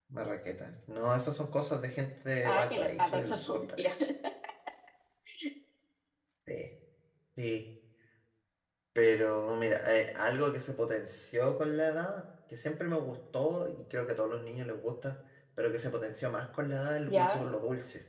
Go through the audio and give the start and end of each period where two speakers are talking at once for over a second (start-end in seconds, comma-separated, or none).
2.4-3.9